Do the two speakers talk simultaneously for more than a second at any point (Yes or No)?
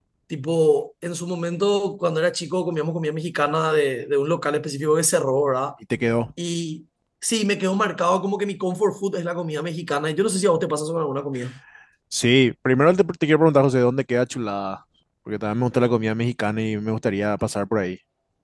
No